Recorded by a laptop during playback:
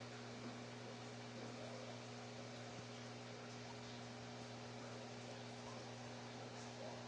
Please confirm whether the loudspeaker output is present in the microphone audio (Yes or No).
No